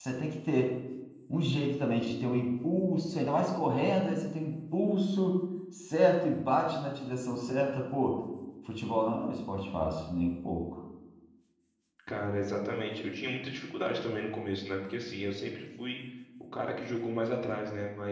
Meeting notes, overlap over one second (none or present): none